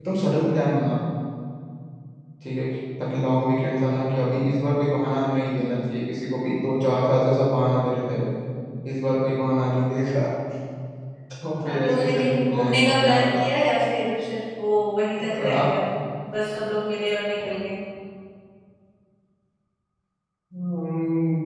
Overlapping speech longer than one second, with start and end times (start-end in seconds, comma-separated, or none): 11.6-13.5